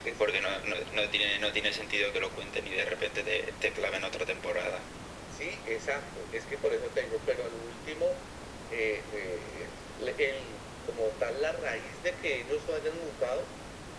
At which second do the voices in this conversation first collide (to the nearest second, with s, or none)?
none